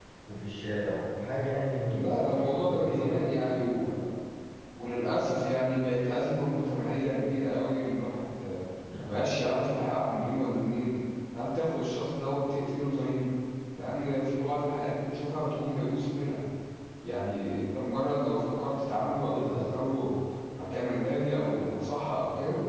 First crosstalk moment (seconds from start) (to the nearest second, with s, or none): 2 s